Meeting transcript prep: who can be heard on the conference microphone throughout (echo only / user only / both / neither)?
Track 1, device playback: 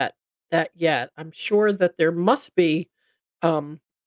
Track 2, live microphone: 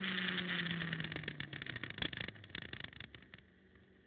neither